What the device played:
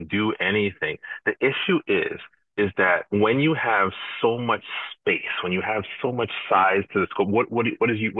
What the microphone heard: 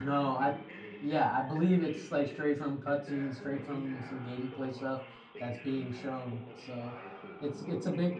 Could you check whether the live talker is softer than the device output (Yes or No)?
No